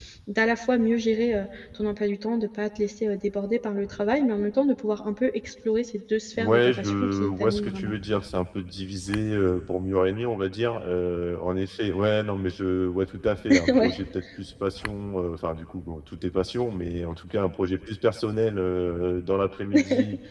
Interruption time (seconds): 6.4 s

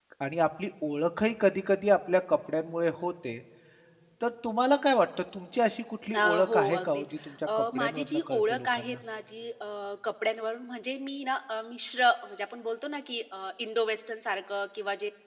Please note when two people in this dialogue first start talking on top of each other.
6.1 s

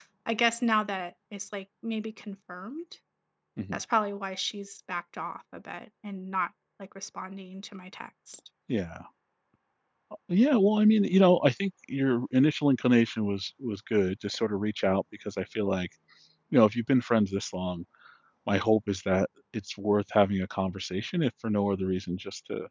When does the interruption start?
none

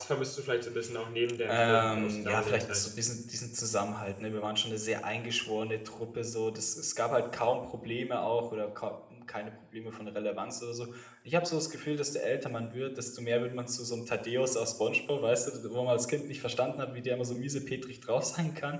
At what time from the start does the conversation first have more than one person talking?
1.5 s

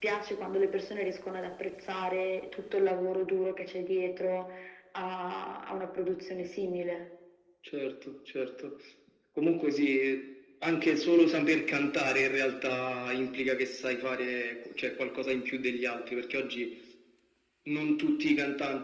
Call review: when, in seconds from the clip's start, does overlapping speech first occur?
none

